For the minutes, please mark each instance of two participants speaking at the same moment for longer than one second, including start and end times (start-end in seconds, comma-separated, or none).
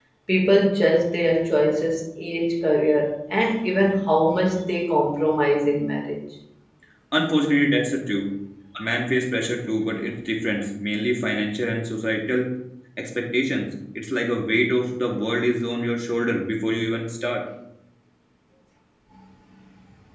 none